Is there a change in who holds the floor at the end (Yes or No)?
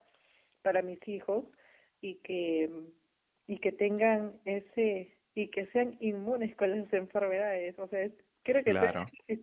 No